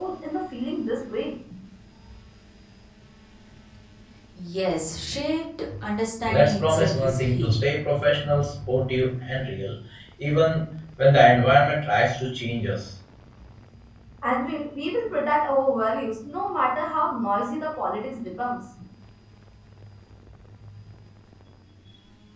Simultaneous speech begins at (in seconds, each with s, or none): 6.3 s